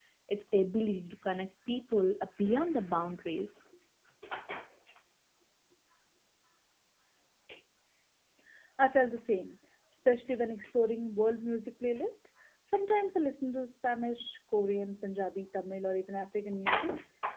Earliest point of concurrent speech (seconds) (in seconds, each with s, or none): none